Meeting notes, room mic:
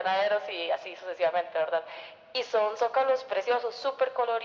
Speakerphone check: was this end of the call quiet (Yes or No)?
Yes